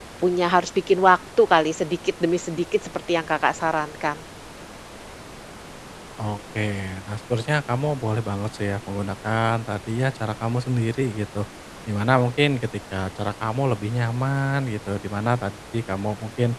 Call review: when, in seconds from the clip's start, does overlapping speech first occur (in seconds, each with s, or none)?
none